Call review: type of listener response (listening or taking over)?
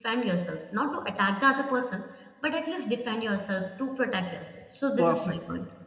taking over